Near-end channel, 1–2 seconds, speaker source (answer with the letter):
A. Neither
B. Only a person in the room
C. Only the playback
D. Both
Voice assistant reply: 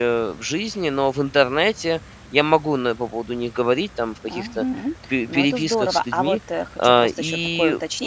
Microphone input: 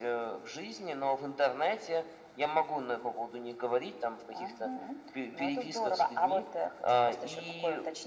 C